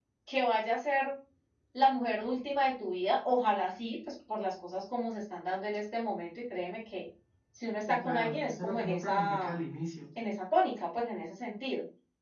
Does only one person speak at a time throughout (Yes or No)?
No